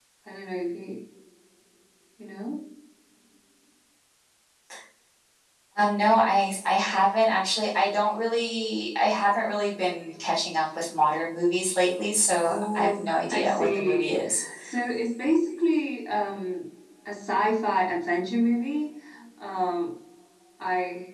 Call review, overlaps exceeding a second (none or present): present